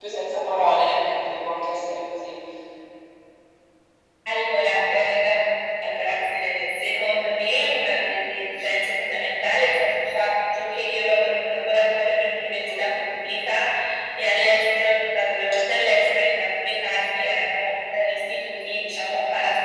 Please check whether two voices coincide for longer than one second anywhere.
No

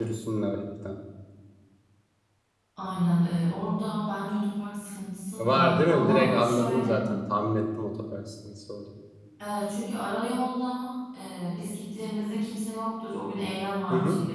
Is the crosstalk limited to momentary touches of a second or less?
No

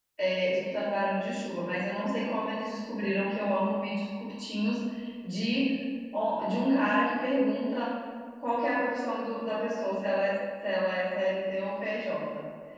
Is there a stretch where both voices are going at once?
No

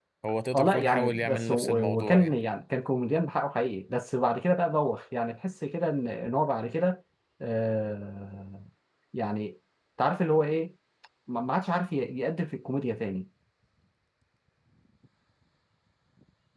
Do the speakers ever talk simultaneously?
Yes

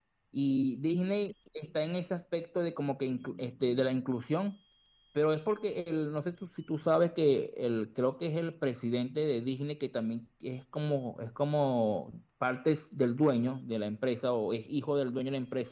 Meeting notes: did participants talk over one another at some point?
No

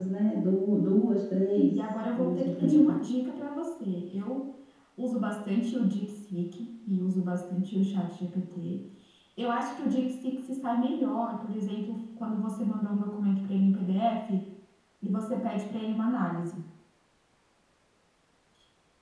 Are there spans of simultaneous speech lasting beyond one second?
Yes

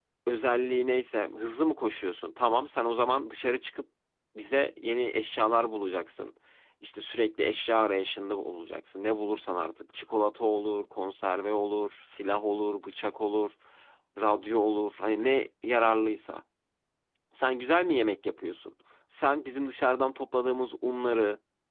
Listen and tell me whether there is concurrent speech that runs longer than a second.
No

